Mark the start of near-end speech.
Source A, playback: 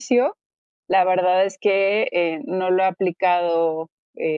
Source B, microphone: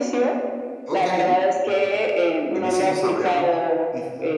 0.8 s

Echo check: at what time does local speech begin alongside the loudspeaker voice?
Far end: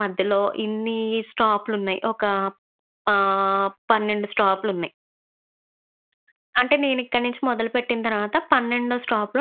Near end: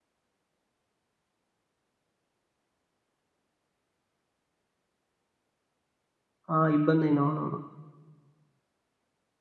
6.5 s

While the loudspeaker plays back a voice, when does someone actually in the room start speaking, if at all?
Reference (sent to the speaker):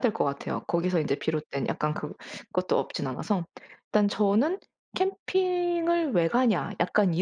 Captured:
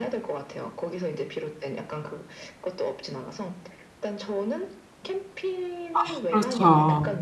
5.9 s

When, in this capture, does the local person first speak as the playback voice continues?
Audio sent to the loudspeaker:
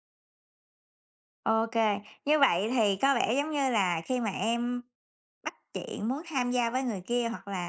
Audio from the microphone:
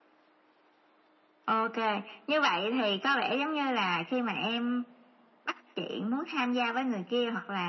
none

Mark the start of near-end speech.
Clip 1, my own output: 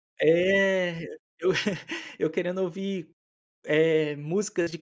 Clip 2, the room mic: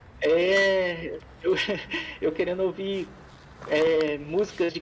none

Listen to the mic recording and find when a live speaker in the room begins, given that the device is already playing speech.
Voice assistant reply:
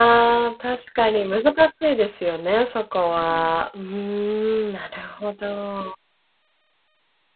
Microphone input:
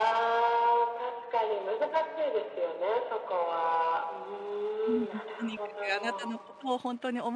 4.9 s

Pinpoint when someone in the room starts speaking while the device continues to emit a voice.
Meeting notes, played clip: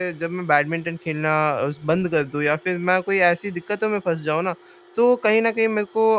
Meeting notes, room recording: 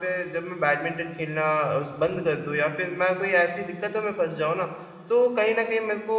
none

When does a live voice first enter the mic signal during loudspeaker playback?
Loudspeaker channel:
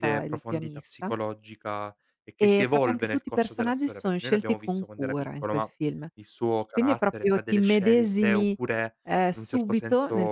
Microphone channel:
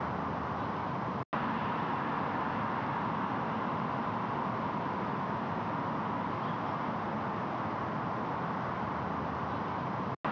none

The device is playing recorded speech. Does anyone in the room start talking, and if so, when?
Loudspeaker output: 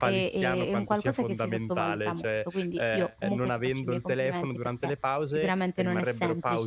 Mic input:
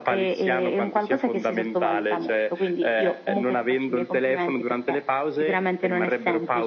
none

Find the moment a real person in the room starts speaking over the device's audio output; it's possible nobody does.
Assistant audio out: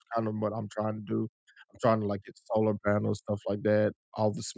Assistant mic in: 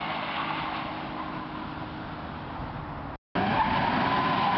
none

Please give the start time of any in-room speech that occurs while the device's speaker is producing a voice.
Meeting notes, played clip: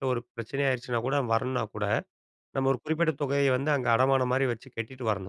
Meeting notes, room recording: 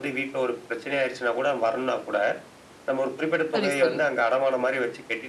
3.5 s

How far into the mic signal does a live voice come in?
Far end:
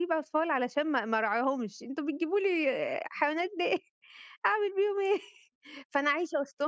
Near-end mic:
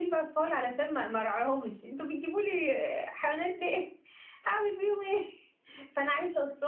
none

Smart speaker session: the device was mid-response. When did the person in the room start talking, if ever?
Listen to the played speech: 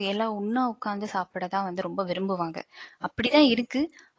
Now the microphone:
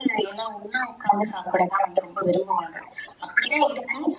none

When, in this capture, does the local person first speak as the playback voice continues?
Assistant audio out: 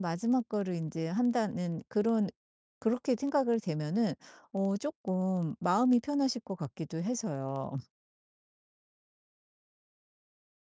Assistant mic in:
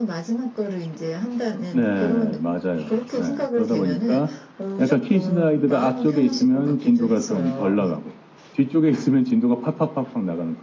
1.7 s

